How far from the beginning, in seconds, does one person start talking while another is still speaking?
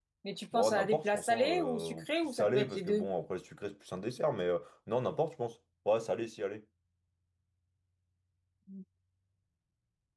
1 s

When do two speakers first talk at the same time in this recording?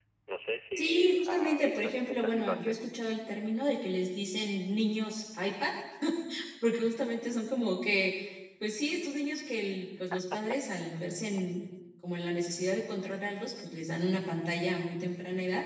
1 s

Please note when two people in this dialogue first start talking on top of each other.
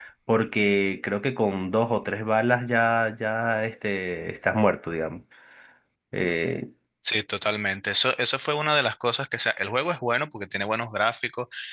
none

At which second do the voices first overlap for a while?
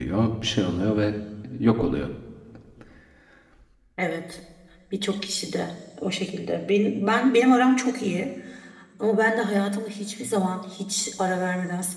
none

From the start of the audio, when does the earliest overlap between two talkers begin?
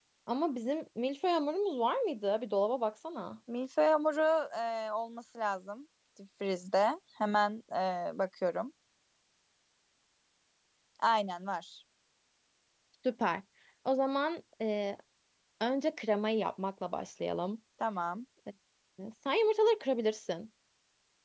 none

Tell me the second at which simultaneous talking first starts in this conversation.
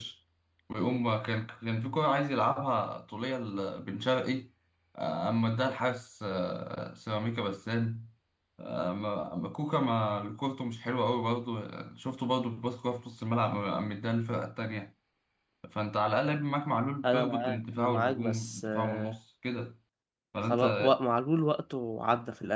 17 s

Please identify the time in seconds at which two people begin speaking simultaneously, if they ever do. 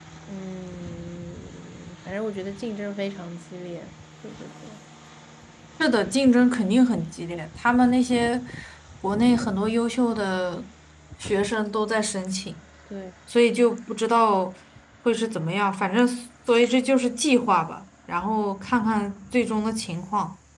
none

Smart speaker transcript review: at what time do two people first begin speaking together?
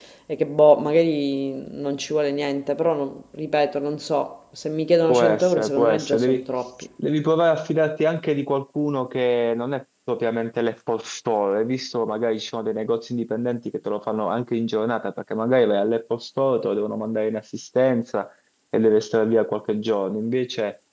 5 s

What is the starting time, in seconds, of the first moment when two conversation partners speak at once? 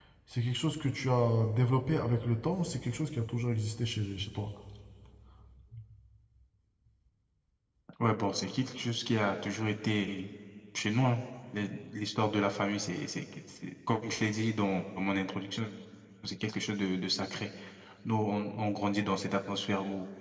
none

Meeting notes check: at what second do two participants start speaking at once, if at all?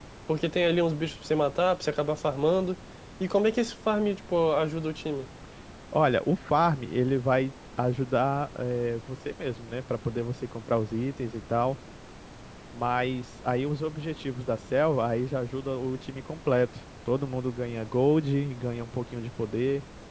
none

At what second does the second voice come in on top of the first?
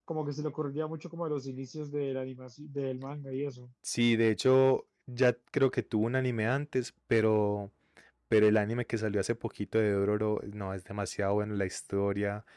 none

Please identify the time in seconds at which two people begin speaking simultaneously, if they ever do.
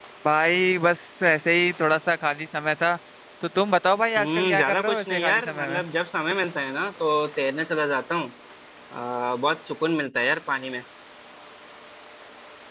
4 s

